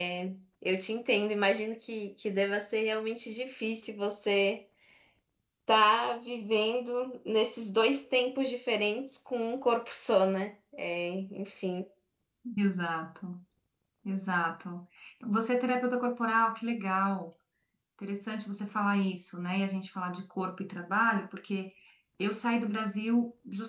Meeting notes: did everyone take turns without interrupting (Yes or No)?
Yes